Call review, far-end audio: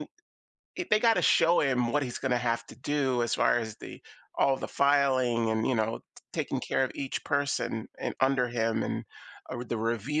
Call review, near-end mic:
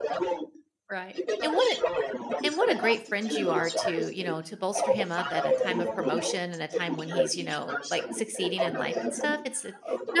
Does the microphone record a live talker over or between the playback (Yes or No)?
Yes